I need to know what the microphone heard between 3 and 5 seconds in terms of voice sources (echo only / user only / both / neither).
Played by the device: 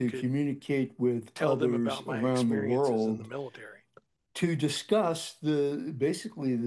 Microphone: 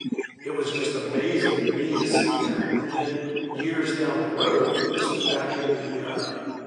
both